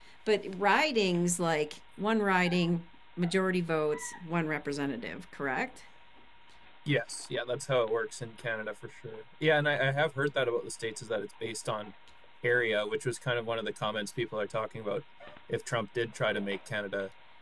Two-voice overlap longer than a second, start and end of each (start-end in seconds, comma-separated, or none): none